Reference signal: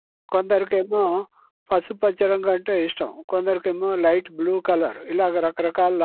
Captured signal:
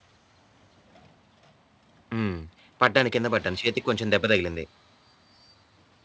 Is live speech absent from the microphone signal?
No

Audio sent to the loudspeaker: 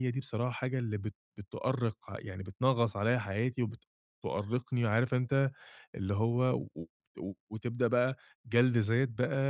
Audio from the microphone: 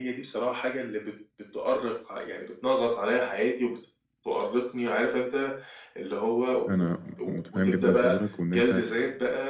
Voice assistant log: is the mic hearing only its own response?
No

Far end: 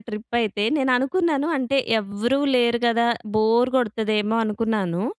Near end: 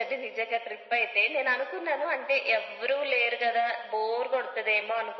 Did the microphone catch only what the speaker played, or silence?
Yes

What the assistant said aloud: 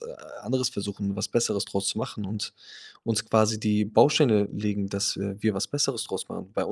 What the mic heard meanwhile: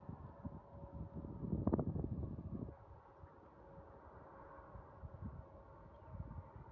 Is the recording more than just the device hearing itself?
No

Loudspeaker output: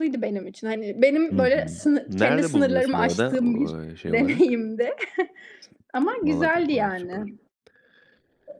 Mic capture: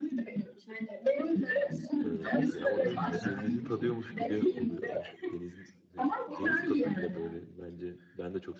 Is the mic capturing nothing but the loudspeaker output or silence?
No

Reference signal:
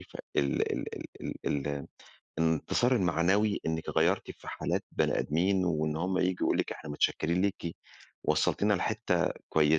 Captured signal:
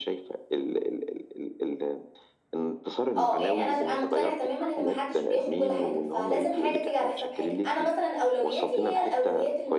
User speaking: Yes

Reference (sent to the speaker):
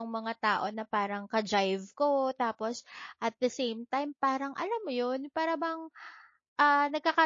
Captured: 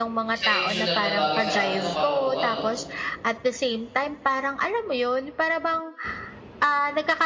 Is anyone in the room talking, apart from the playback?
Yes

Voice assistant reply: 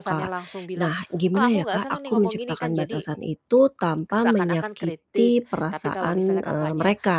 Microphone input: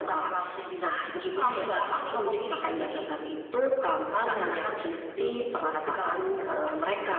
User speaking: No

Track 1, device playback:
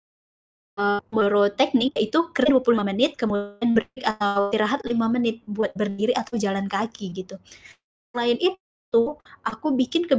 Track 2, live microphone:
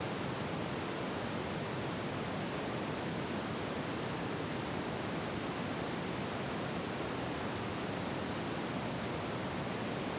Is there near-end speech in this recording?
No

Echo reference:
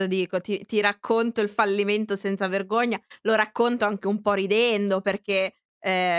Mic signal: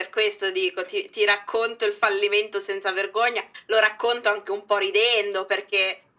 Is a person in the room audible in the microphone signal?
No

